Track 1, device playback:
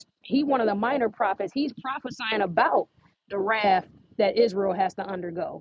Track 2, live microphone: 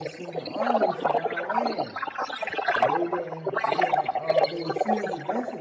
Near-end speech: present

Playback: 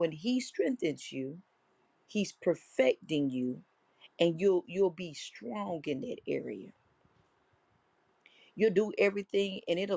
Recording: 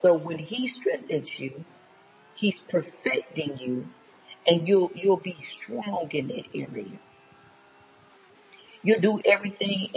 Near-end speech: none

